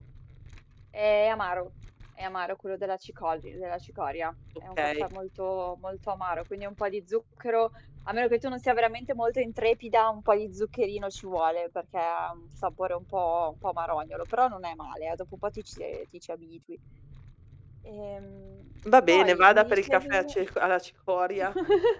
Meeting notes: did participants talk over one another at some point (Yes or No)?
Yes